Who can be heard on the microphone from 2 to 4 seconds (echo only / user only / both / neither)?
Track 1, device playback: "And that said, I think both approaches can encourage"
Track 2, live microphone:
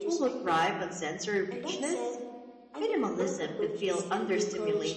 both